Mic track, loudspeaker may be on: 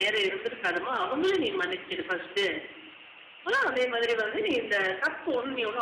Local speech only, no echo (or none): none